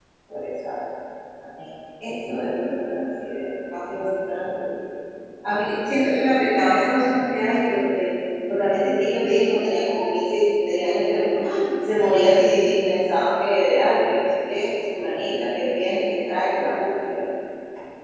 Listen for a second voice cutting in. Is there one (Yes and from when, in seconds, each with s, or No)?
No